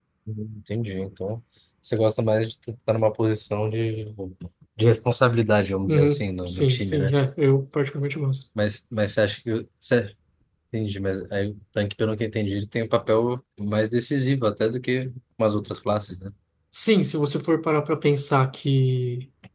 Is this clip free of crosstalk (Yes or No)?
No